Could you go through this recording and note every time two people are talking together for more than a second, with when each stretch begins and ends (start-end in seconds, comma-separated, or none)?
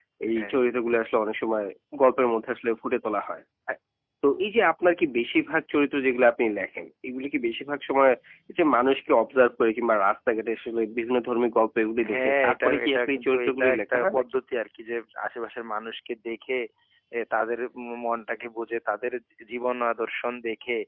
12.1-14.2